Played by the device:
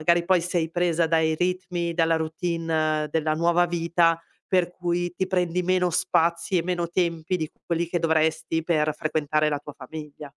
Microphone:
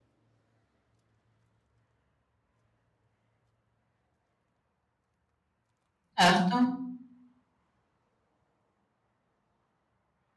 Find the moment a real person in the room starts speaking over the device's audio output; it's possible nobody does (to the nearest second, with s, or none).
6 s